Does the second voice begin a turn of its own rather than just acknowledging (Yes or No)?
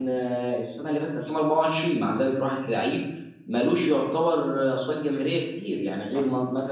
No